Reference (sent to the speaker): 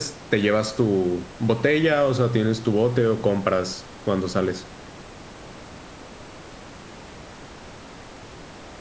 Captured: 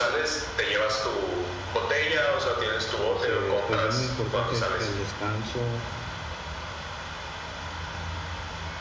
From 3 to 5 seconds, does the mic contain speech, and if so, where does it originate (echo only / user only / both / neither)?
both